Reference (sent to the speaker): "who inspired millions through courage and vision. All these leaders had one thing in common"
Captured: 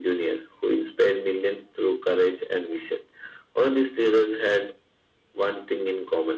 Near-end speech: none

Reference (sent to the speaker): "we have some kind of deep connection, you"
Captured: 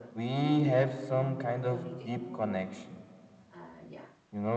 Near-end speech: present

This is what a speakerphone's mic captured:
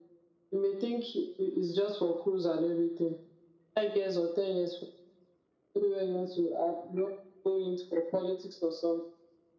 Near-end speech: none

